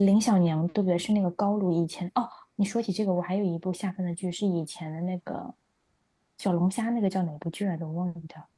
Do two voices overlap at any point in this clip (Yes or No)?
No